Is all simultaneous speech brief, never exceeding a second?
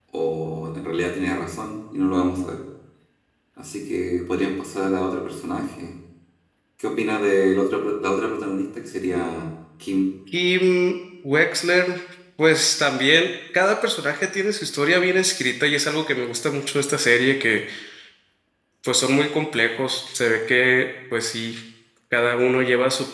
Yes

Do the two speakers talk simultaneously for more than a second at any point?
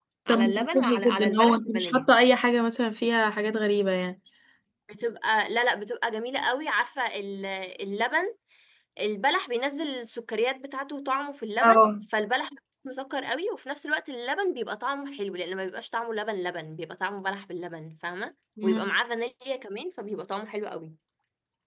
Yes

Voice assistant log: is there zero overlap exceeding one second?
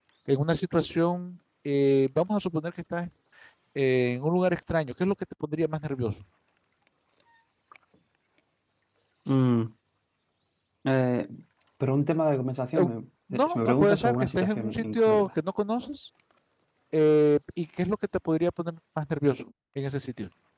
No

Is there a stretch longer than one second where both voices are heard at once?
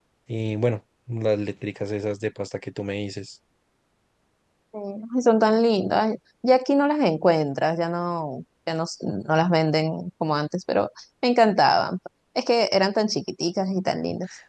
No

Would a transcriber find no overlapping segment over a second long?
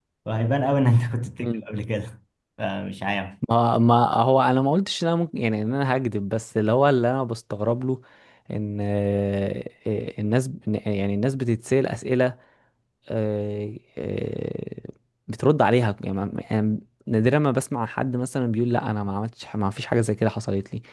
Yes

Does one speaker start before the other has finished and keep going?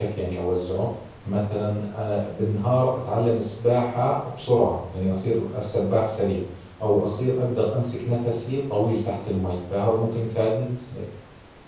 No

